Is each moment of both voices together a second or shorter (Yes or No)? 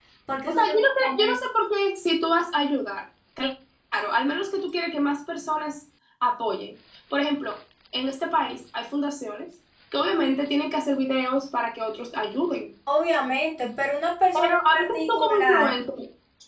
No